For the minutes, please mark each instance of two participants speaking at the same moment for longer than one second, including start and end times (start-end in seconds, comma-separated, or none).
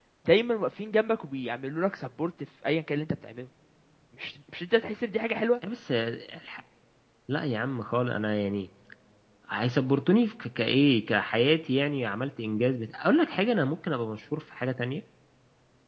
none